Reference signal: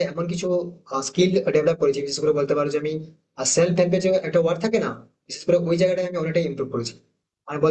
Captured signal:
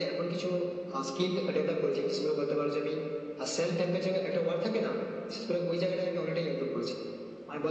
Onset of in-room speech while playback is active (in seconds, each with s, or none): none